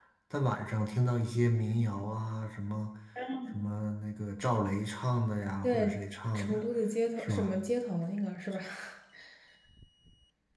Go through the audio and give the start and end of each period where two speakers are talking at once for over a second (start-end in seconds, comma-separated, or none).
none